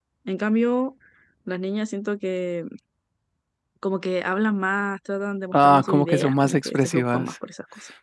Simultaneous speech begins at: 5.5 s

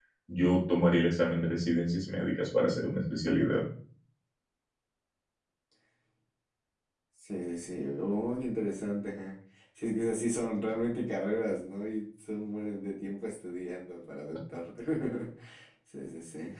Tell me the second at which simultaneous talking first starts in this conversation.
none

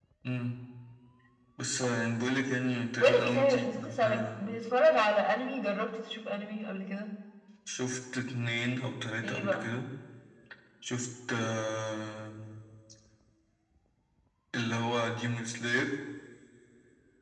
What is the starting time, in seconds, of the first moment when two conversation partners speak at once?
3.0 s

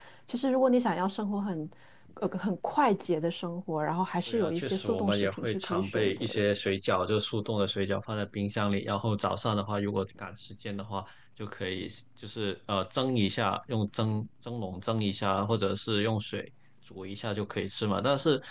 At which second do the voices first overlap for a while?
4.3 s

